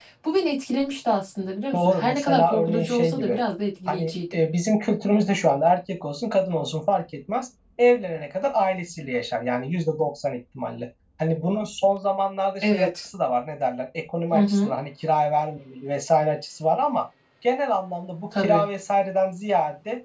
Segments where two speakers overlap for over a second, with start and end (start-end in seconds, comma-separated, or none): 1.7-3.4